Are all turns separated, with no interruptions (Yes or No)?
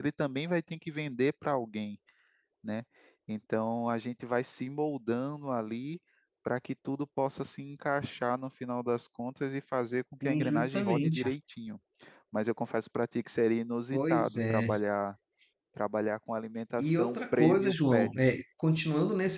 No